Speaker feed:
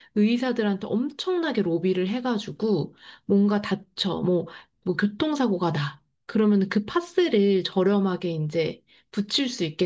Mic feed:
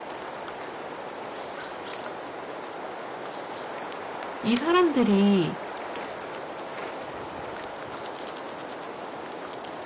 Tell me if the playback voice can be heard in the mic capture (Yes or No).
No